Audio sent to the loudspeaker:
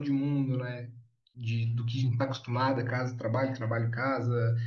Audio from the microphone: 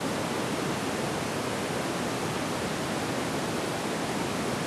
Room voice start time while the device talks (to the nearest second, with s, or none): none